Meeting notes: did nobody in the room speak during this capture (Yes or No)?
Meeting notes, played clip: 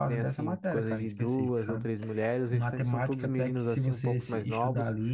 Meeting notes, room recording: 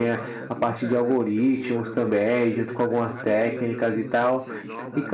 No